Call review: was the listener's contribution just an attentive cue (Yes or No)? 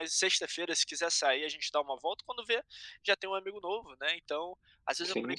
Yes